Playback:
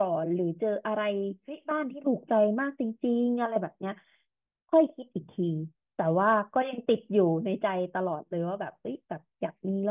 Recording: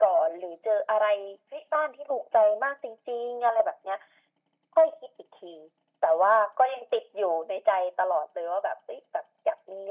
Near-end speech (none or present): none